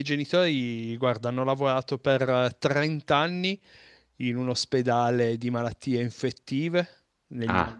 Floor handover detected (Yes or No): No